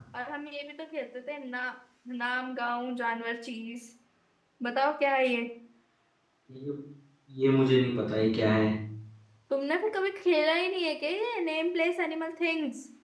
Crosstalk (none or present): none